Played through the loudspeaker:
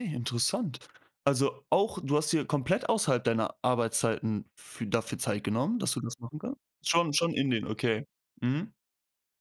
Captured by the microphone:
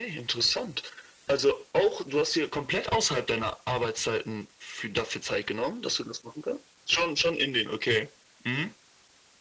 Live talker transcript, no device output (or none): none